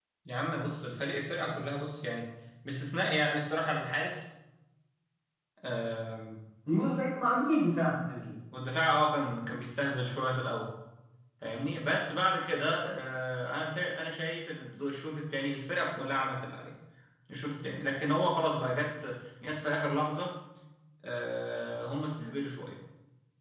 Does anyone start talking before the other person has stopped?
No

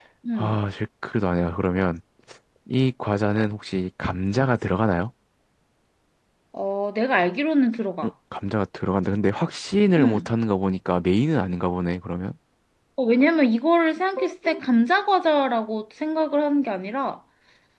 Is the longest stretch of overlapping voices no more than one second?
Yes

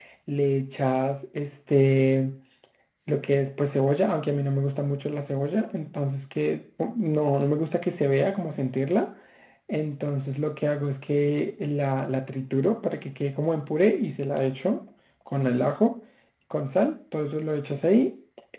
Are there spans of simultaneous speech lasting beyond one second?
No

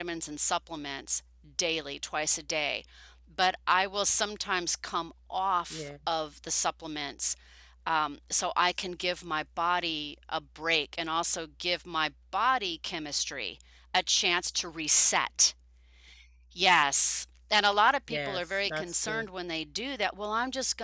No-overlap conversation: No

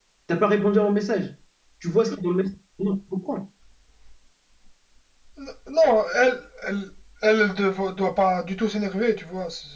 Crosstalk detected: No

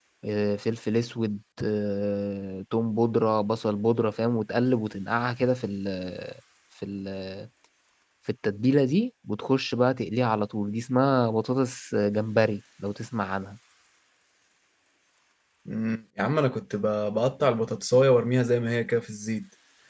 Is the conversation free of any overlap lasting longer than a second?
Yes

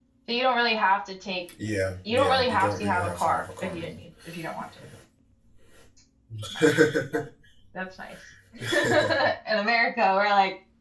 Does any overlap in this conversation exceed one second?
Yes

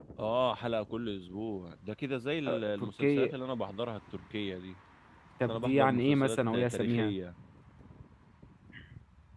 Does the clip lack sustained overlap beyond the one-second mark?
No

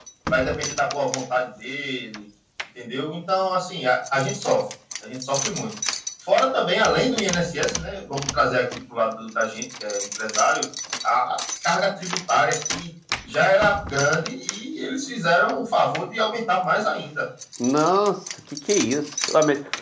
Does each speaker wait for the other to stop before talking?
Yes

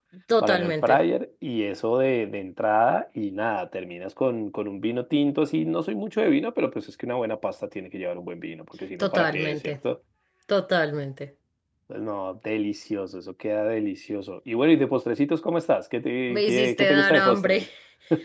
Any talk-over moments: Yes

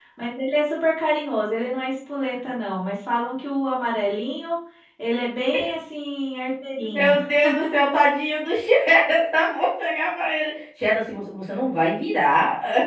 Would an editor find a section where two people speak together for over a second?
No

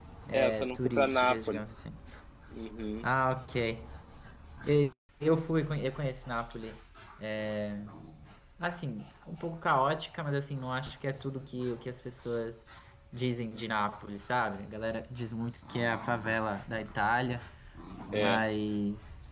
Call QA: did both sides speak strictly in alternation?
No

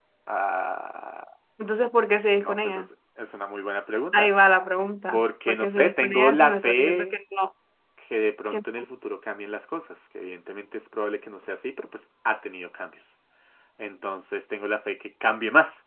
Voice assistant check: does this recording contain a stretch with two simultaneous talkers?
Yes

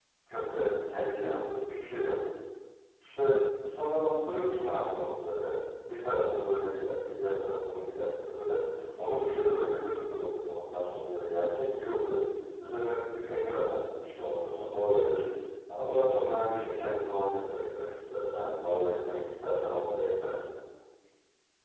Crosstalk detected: No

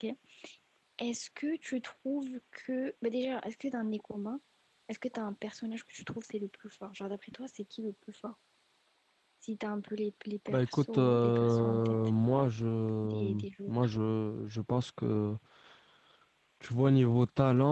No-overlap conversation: No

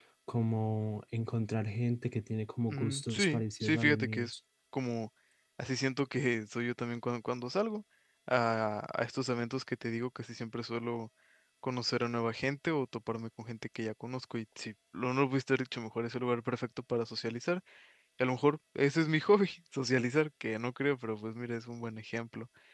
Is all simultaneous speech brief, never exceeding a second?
No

